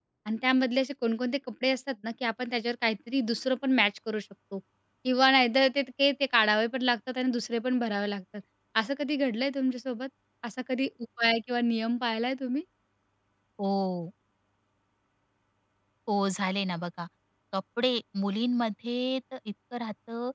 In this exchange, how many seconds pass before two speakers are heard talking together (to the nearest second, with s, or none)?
none